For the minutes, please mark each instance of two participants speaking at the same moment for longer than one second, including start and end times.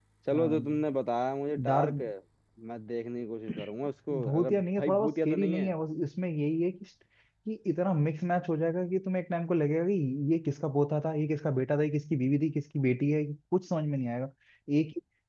4.2-5.7

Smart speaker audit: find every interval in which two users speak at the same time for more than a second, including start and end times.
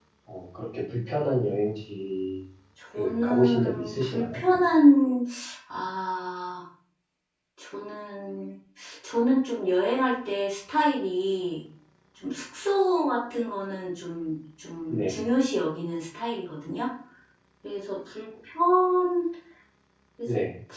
3.0-4.4

